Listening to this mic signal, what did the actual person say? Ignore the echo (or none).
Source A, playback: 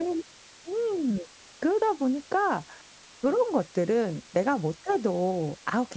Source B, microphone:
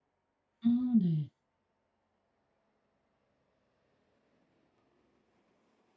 음 네.